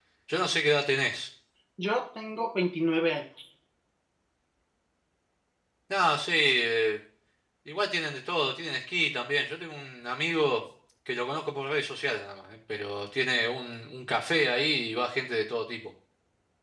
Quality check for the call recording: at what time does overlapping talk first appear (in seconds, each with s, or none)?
none